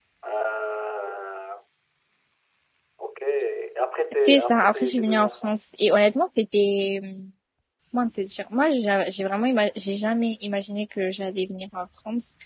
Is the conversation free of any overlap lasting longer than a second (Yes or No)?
No